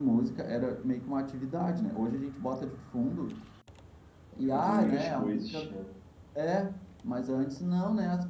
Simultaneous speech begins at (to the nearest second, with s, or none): 4 s